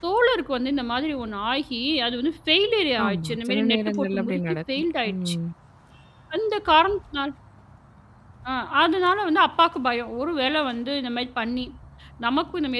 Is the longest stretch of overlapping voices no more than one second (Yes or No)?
No